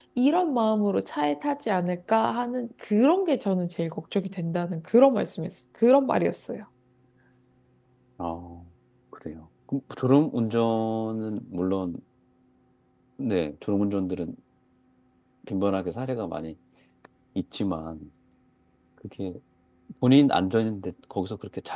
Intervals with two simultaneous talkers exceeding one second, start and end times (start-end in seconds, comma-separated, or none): none